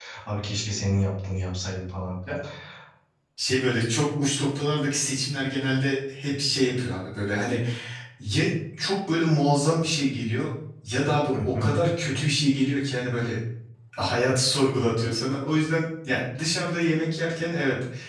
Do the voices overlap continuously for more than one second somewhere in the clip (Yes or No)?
No